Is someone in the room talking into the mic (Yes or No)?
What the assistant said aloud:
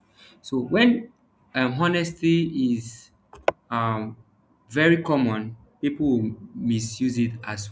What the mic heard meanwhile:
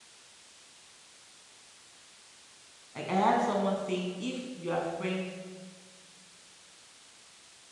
Yes